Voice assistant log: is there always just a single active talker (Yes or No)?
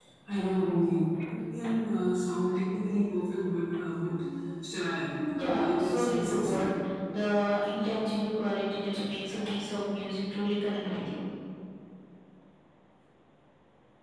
No